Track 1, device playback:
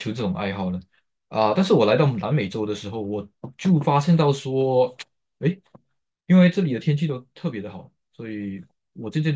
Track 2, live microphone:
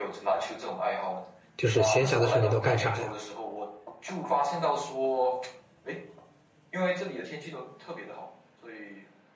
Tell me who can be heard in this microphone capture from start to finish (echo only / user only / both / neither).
both